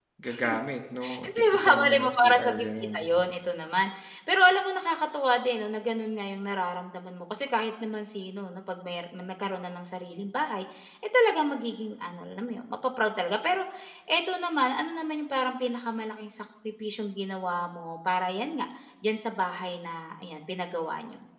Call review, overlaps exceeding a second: present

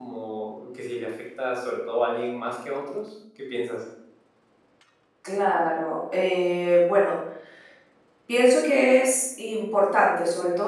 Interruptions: none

